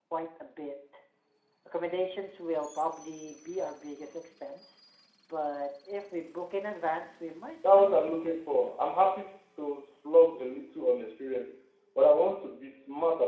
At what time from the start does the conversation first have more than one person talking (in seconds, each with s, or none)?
7.6 s